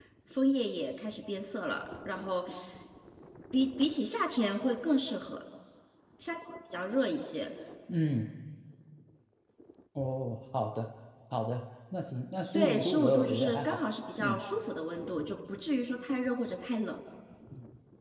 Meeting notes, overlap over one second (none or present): present